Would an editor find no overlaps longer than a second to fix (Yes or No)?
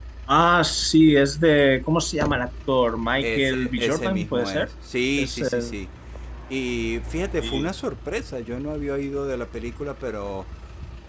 No